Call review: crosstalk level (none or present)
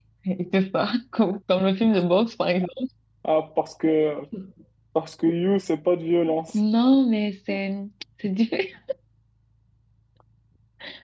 none